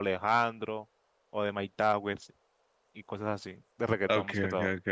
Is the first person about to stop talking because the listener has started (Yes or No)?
Yes